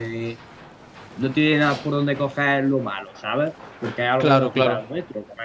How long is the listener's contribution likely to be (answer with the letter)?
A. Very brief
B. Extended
A